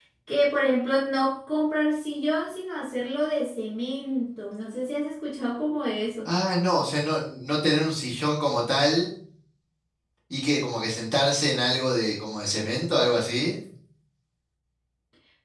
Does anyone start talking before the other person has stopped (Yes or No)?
No